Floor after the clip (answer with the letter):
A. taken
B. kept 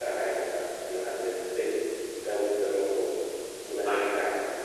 B